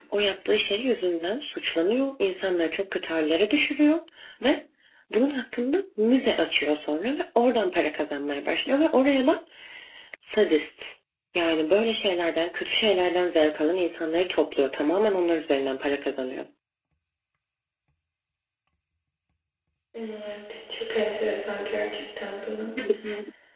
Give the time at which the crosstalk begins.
none

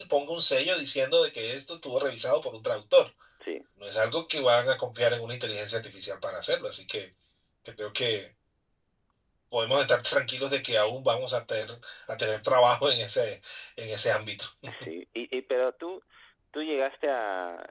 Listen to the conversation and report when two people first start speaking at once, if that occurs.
none

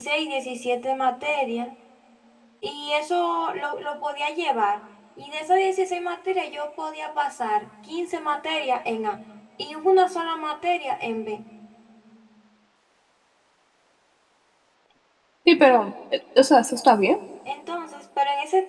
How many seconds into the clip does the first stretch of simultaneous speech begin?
none

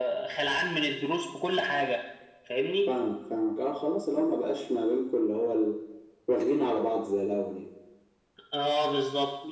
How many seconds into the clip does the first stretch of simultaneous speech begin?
none

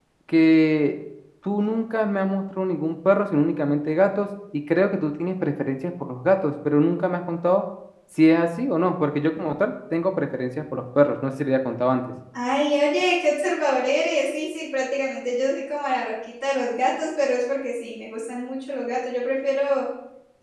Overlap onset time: none

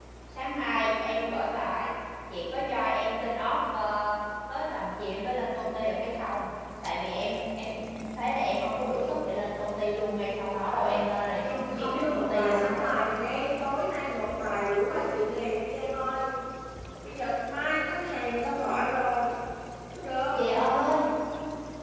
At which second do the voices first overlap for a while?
11.4 s

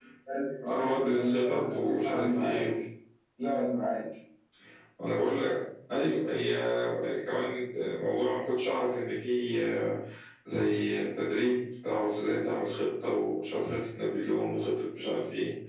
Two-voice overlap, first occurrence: 0.6 s

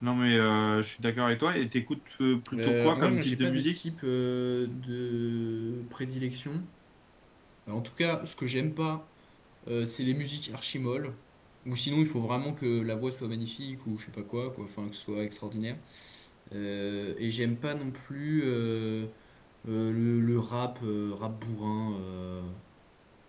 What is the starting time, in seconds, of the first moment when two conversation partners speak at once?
2.5 s

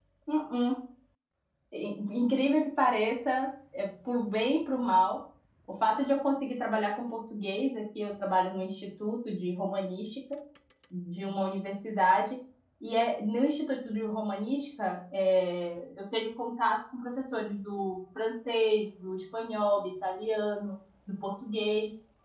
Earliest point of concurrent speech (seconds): none

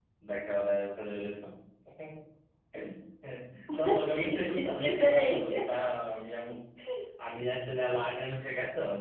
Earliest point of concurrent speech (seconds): 3.7 s

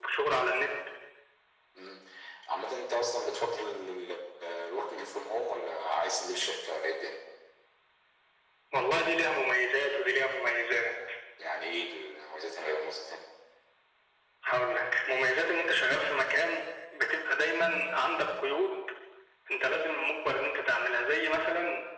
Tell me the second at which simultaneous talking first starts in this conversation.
none

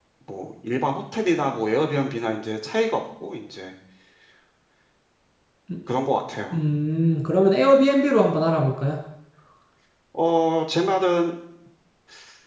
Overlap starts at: none

